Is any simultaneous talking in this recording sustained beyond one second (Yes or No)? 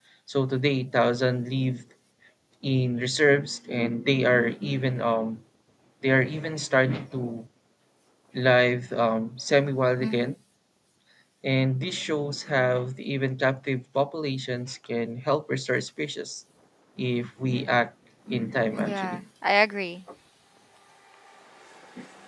No